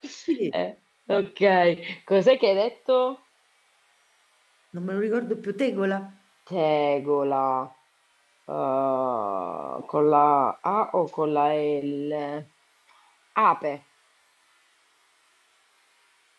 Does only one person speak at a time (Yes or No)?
Yes